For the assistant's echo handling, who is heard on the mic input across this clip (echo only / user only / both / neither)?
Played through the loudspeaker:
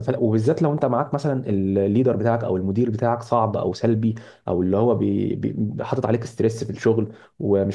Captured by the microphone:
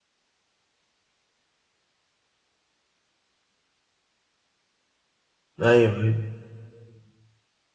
user only